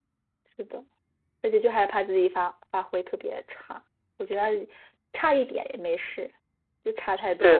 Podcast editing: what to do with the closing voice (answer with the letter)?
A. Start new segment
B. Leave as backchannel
A